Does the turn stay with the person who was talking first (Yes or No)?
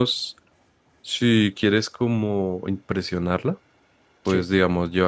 Yes